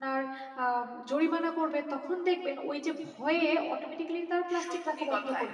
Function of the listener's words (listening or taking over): taking over